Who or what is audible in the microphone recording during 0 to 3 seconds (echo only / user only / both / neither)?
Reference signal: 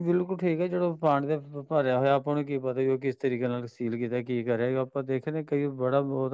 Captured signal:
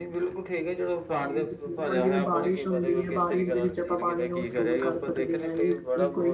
both